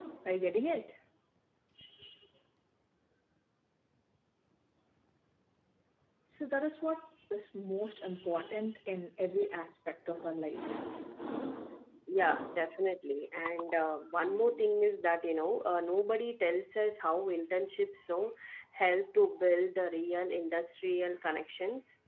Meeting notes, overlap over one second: none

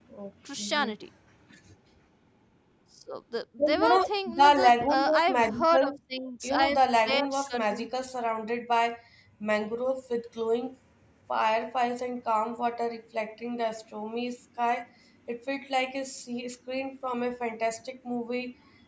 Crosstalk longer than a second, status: present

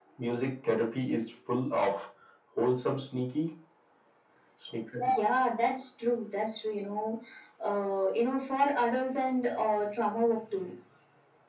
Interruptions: none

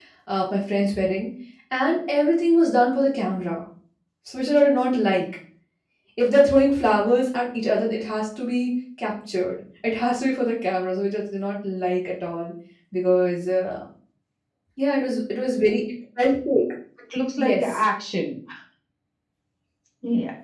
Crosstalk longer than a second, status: none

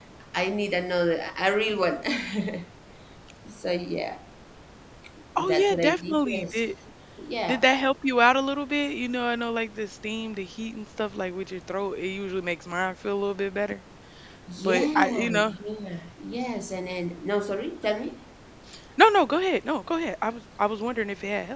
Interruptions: present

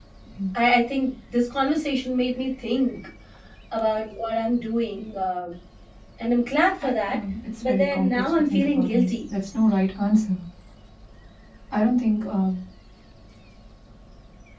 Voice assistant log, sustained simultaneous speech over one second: present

